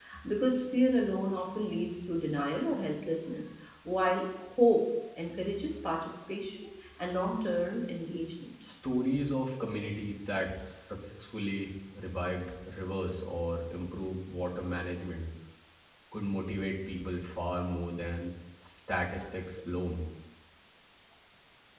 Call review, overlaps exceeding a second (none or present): none